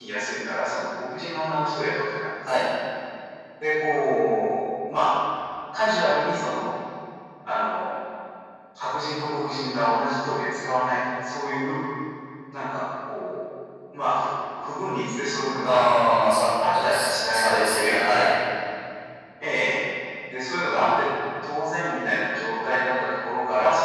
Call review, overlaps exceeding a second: present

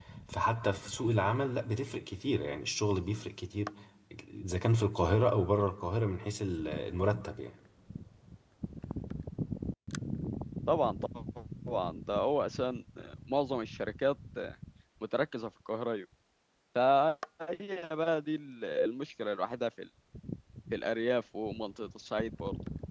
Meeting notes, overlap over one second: none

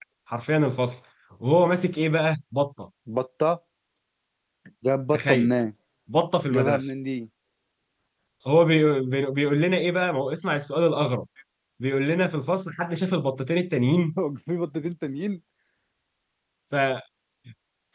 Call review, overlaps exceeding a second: none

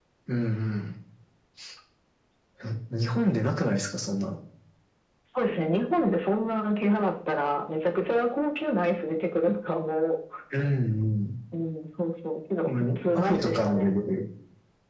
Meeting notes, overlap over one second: present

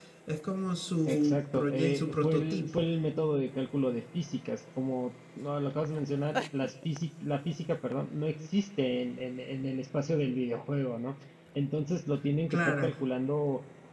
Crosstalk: present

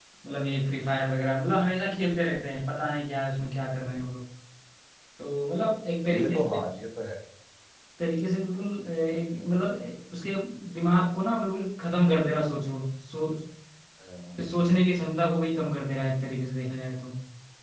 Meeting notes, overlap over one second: none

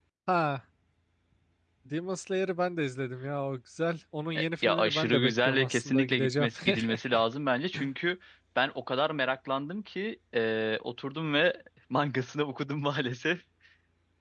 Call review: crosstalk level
present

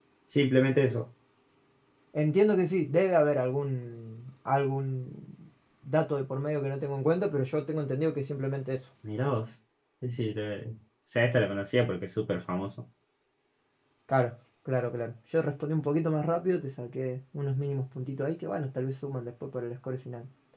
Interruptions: none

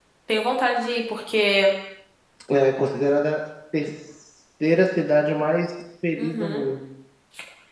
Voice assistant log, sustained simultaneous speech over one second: none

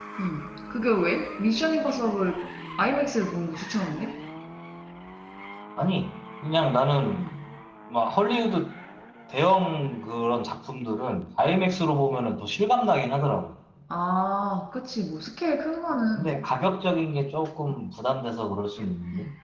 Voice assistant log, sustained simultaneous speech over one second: none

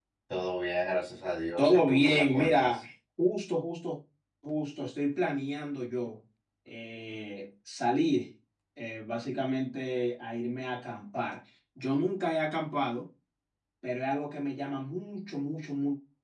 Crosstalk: present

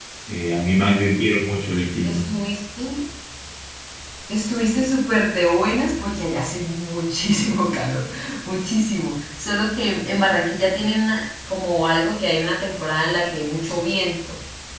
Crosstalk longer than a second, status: none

